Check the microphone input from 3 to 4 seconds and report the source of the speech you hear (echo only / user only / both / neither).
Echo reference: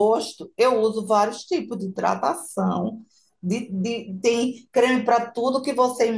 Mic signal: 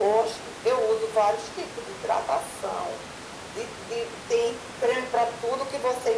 echo only